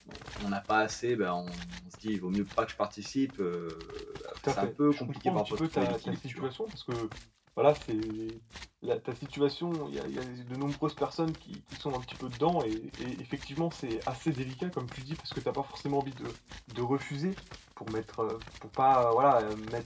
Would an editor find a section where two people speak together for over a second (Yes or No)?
Yes